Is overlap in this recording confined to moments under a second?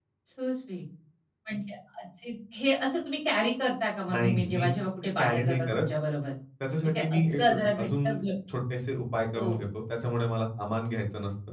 No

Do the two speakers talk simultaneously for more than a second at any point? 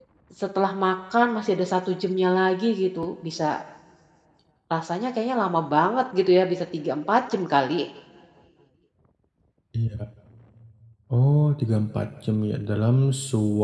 No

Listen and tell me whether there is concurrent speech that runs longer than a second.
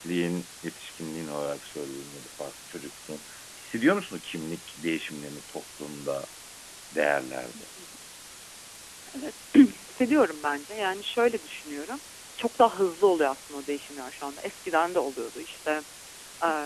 No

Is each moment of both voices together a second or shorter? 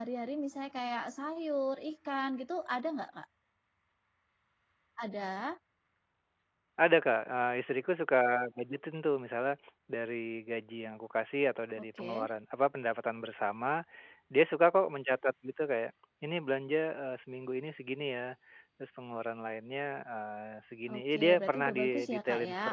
No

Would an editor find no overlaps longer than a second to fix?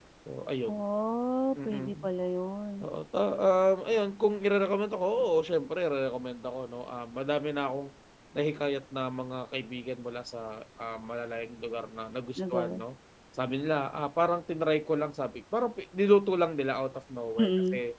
Yes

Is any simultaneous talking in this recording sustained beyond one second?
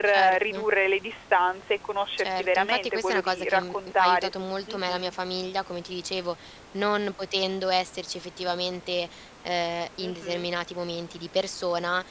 Yes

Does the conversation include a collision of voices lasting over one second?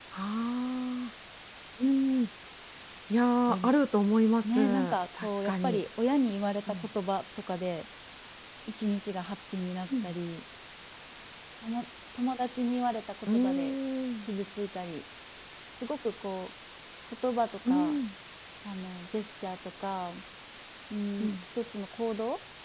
Yes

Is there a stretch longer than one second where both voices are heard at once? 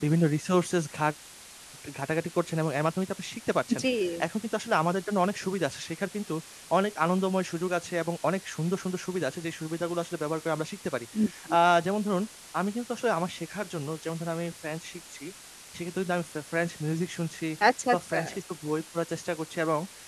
No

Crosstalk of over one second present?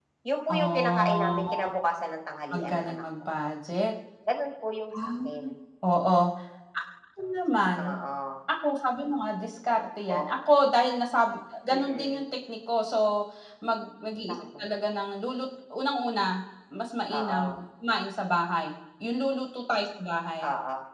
Yes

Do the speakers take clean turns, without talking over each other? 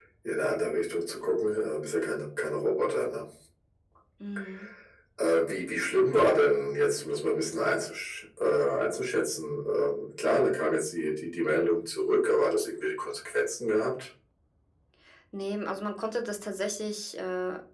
Yes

